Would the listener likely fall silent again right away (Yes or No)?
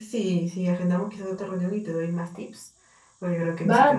No